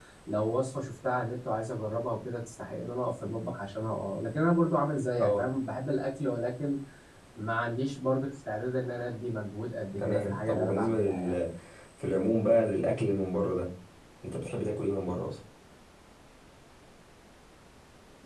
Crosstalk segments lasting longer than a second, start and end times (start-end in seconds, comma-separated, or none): 10.0-11.4